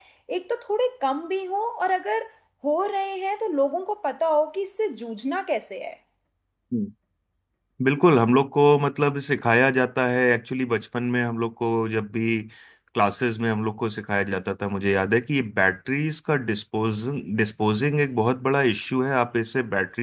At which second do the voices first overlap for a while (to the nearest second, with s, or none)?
none